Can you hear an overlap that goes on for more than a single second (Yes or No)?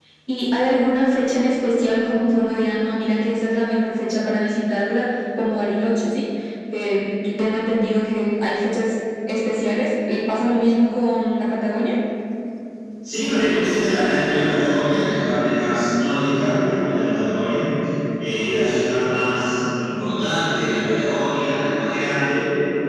No